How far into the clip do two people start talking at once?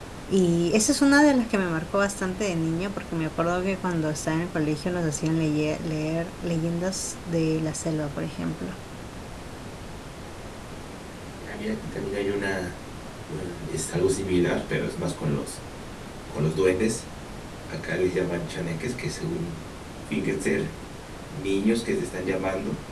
none

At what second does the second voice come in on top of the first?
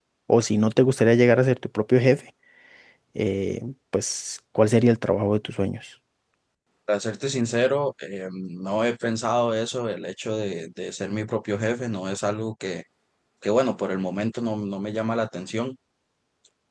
none

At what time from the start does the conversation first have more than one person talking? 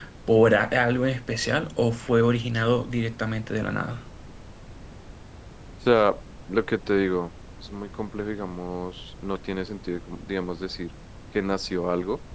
none

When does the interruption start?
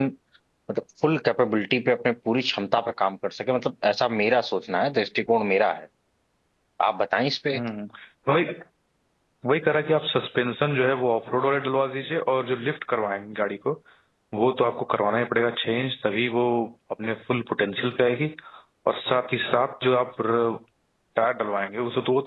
none

